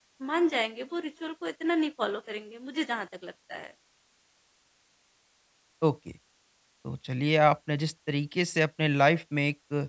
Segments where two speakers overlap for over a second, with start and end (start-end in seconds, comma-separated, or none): none